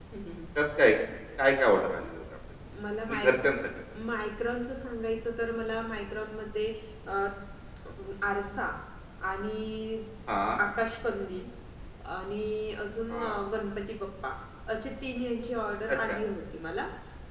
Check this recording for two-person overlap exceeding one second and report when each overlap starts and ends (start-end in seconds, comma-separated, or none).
none